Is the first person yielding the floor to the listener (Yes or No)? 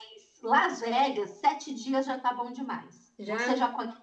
No